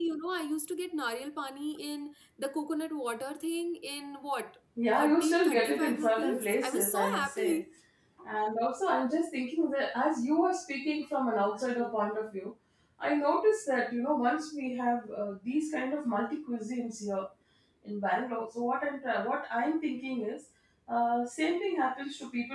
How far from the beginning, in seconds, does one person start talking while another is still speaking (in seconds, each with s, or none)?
4.8 s